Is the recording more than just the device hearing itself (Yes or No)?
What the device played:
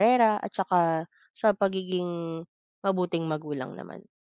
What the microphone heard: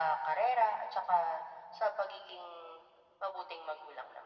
No